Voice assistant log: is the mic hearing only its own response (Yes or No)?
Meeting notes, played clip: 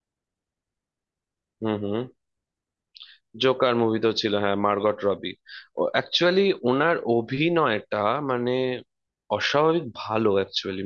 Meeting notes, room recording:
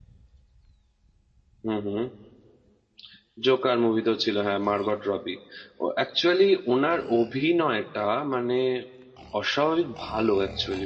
Yes